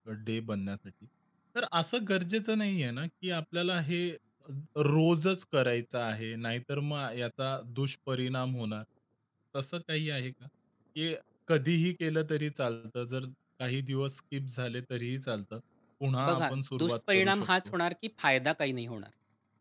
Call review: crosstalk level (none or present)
present